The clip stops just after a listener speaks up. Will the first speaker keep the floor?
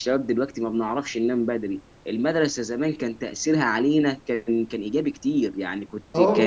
Yes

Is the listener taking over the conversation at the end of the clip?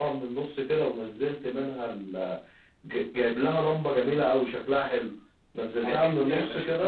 Yes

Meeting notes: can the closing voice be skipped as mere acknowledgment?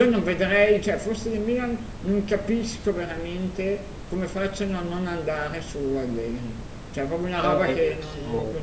No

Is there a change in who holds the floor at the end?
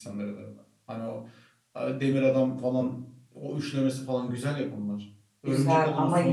Yes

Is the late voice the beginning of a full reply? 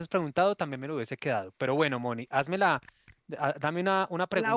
No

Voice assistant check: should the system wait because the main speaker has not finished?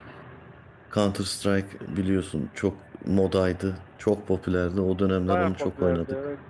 No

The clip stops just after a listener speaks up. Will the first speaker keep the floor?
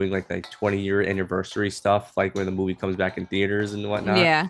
Yes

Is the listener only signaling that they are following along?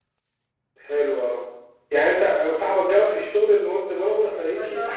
No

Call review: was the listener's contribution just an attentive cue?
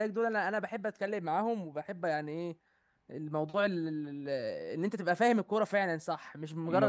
Yes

